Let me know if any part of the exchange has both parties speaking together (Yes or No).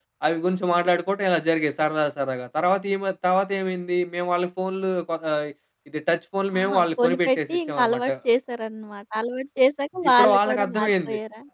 Yes